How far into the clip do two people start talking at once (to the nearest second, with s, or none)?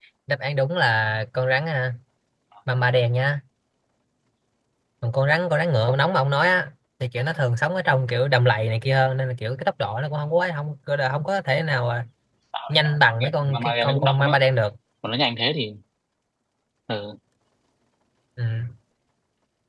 13 s